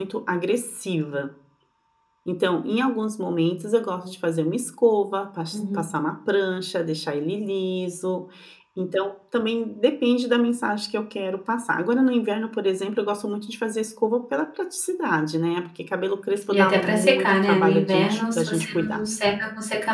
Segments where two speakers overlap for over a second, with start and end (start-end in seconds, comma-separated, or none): 16.5-19.0